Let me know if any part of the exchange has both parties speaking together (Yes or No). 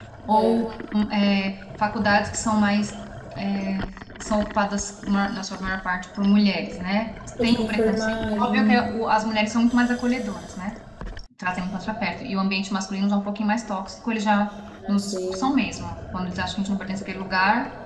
Yes